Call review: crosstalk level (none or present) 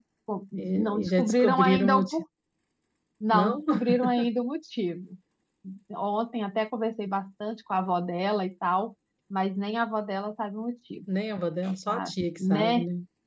present